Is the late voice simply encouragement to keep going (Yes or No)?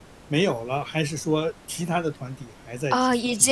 No